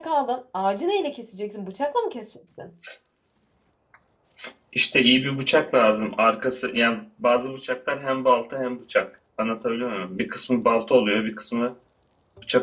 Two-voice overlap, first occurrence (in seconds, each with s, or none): none